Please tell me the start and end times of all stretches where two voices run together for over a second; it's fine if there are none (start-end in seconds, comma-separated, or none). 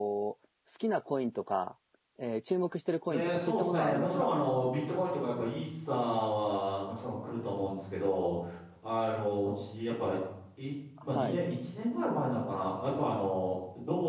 3.1-4.3